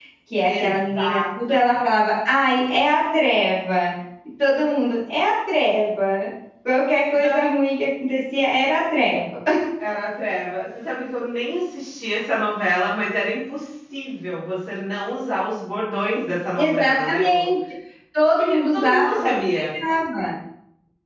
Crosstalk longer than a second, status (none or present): present